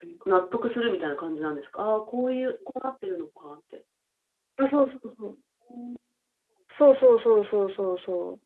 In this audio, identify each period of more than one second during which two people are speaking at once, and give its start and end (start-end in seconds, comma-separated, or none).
none